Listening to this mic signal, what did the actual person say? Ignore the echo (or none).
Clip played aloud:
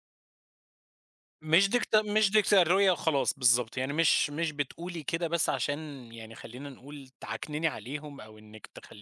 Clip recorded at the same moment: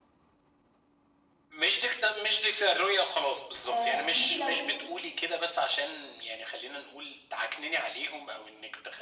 آآ أنتِ لو